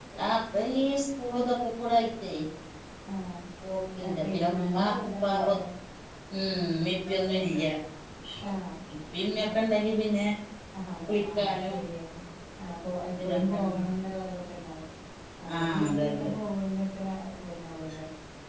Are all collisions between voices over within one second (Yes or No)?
No